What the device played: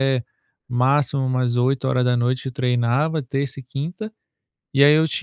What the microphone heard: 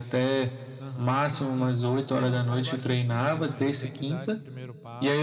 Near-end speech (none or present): present